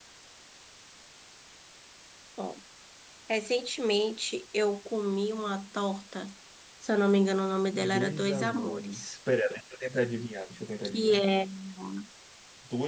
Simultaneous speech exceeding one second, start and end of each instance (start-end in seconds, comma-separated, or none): 7.7-9.2